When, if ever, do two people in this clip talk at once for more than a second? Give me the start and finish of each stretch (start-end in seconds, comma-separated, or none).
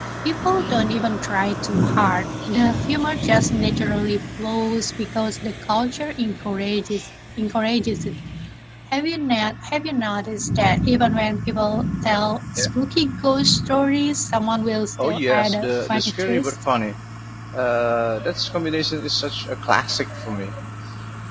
15.0-16.6